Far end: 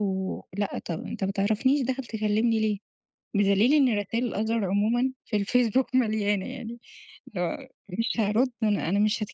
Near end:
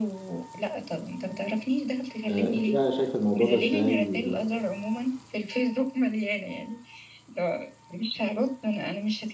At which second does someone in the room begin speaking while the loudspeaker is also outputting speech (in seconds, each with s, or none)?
2.2 s